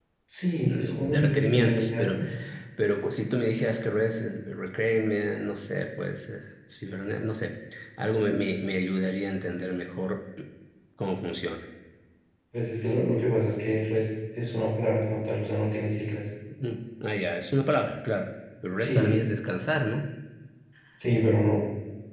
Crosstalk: present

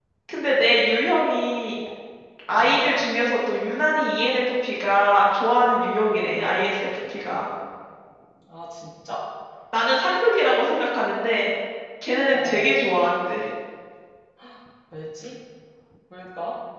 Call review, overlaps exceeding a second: none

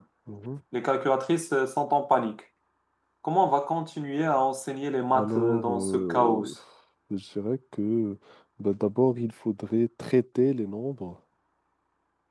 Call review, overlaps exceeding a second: present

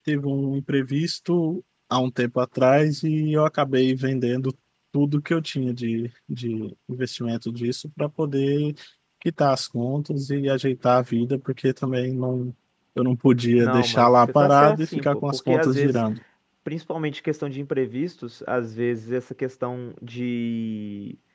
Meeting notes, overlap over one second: present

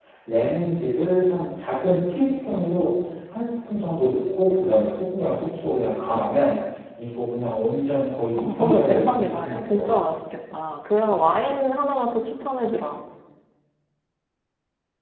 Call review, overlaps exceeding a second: present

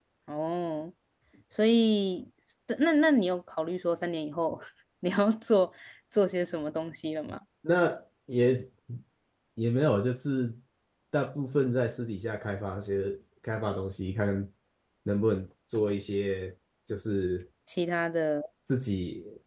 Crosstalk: none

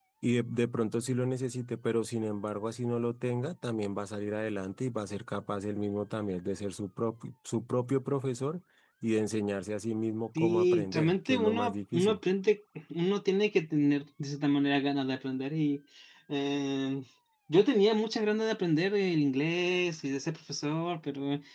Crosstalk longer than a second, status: present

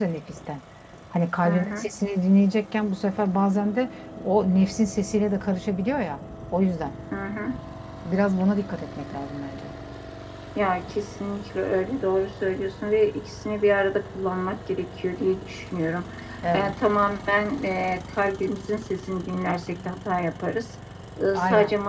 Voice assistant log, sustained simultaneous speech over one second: none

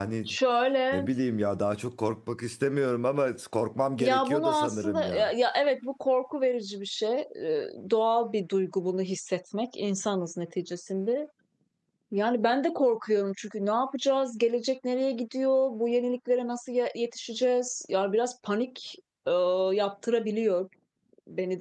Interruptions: present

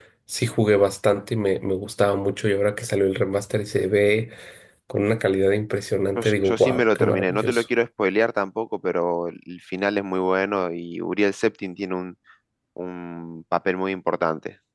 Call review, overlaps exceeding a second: present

